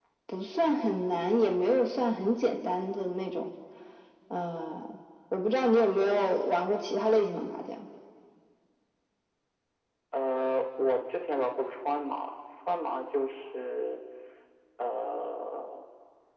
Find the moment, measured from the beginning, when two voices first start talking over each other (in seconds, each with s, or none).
none